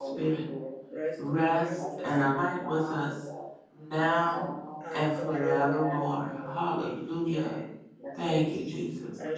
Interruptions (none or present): present